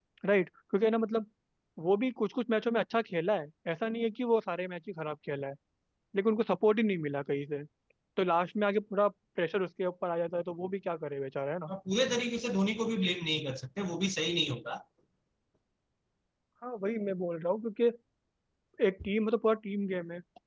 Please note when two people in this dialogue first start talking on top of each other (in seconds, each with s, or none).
none